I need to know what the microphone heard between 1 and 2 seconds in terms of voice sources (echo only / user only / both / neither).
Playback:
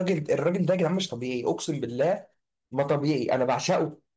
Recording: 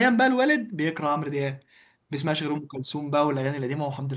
user only